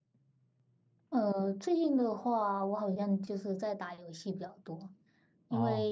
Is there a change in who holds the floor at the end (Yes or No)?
No